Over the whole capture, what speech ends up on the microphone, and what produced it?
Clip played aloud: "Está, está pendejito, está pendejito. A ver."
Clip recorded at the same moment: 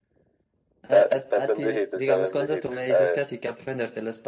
both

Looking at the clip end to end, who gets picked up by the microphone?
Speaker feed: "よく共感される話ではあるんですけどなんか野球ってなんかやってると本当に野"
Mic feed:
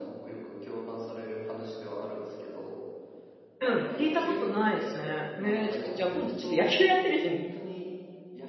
both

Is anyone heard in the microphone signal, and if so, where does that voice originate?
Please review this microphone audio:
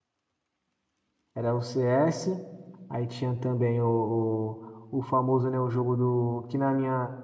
user only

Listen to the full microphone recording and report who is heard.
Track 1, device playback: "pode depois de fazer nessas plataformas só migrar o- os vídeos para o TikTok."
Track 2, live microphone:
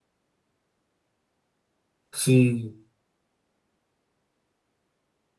user only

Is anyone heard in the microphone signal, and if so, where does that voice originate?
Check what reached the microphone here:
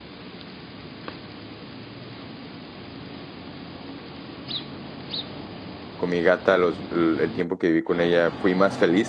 user only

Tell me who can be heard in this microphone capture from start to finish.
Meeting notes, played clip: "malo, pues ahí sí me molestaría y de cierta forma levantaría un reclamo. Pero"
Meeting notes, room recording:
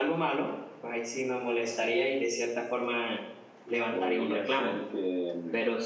both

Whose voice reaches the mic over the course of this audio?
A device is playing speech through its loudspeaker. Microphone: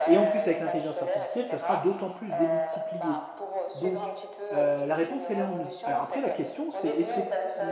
both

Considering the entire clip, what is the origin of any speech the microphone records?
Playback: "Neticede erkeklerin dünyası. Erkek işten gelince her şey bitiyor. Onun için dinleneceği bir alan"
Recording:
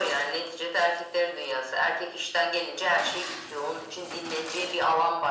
echo only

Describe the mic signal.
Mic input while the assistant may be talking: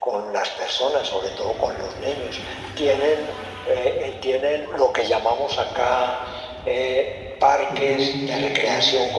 both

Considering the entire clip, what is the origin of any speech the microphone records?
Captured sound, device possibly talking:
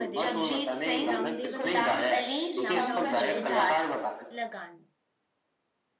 both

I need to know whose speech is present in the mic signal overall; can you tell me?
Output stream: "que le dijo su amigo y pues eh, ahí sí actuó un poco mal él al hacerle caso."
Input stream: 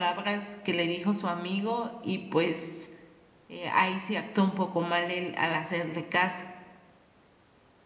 echo only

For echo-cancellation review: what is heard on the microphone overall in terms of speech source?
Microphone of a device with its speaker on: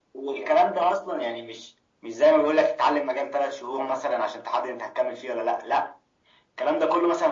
echo only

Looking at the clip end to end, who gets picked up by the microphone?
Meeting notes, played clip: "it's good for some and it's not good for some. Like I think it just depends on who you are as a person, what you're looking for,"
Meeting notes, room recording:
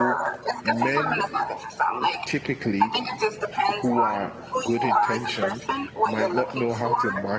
both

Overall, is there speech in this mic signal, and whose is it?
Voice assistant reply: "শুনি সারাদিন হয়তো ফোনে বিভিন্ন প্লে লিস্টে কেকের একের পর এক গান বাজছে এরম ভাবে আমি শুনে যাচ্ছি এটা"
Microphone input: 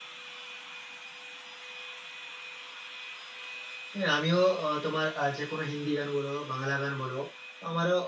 user only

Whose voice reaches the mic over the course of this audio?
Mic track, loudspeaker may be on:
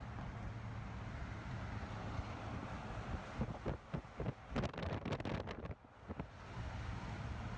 neither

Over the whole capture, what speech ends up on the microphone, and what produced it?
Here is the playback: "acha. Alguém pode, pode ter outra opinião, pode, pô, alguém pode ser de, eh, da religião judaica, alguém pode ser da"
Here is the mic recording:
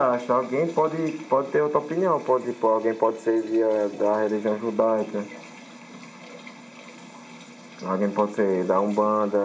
echo only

